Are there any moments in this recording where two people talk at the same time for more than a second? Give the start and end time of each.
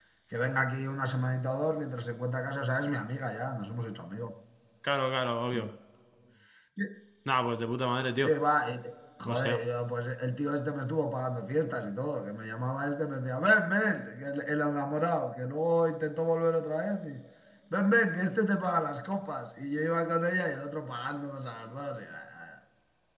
none

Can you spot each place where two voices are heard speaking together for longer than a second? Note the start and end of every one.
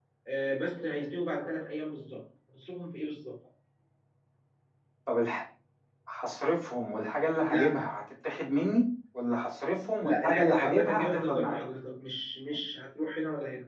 10.0-11.6

